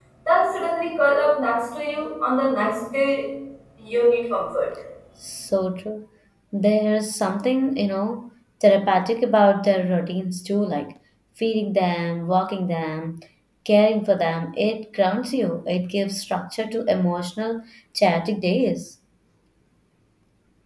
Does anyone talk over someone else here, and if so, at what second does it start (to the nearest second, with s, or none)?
none